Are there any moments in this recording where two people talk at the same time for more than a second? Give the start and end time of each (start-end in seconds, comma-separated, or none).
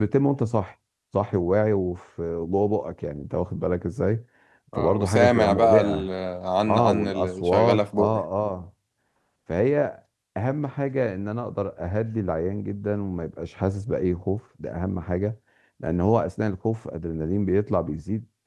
4.8-6.1, 6.7-8.2